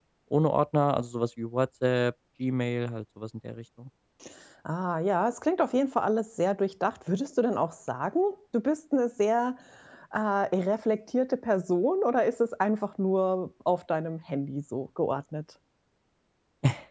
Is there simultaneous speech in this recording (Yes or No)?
No